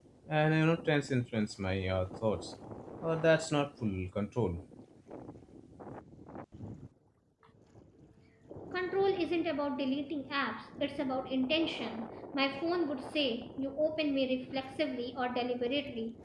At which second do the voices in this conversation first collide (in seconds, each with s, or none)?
none